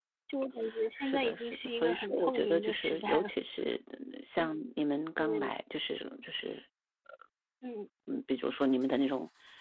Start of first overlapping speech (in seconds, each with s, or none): 1.0 s